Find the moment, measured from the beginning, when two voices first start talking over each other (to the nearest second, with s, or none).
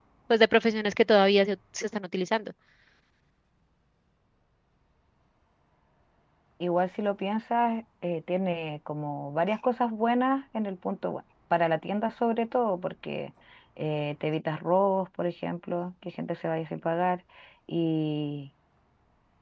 none